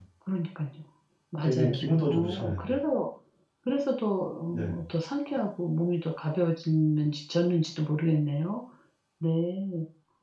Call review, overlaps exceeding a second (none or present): present